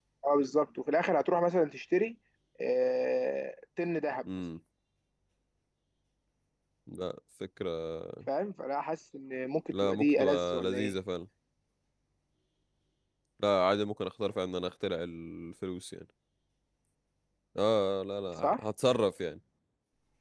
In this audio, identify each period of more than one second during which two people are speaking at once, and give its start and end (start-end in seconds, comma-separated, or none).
9.7-10.9